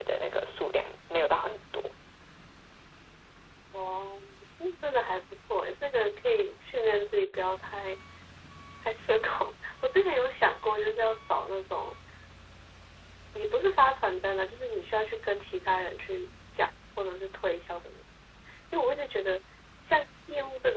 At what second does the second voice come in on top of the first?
none

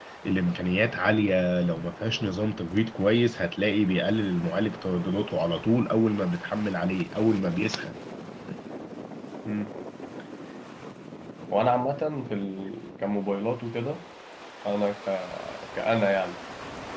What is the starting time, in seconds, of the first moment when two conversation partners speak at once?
none

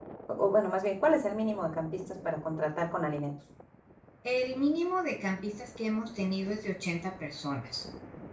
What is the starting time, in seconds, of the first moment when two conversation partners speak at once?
none

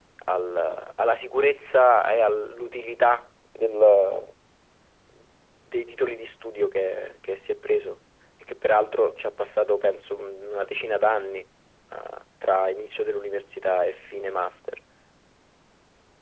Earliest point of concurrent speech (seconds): none

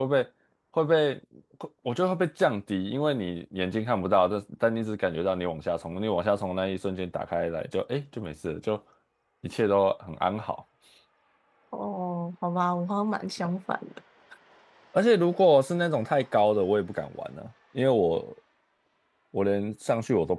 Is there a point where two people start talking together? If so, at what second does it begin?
none

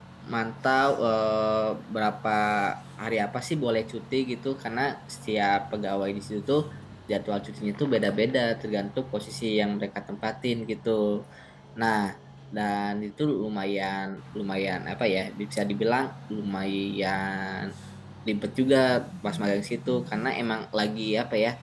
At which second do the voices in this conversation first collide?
none

